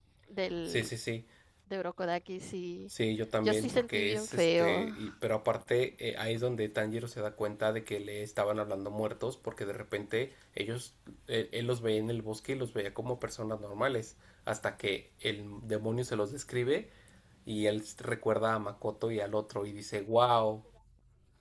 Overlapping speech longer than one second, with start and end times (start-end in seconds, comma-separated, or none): 3.4-4.9